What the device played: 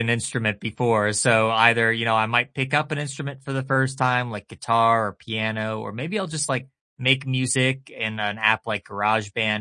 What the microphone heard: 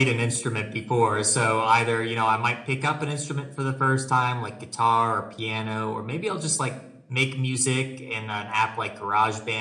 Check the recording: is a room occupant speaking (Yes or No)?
No